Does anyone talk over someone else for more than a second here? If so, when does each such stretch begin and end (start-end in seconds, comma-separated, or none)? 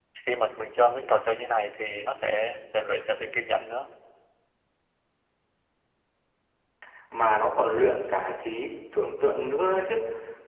none